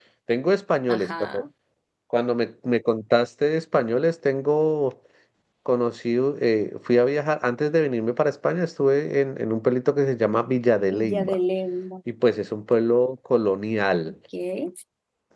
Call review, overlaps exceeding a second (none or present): none